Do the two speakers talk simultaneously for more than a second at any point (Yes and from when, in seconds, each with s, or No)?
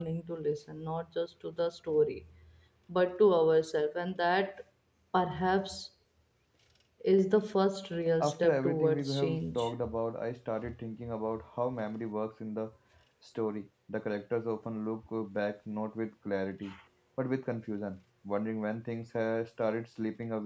Yes, from 8.2 s